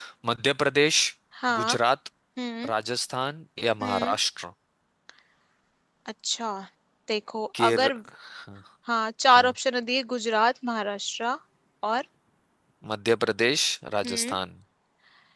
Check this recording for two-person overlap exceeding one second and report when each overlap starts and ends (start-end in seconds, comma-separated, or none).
none